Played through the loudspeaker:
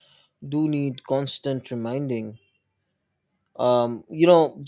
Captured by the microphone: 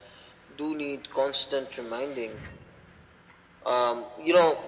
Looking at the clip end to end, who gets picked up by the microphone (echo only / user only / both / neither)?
echo only